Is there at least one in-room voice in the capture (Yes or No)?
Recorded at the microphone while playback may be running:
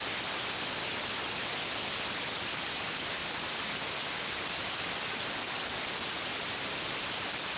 No